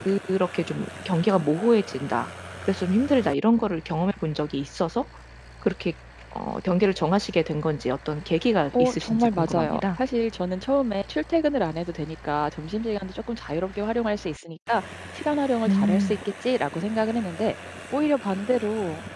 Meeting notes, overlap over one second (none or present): present